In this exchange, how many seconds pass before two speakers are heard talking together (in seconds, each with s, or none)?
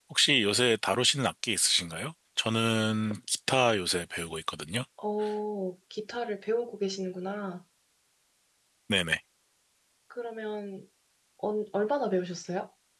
none